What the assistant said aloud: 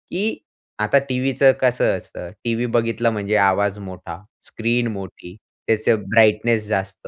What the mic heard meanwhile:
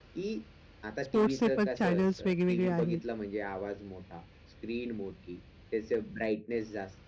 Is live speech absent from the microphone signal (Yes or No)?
No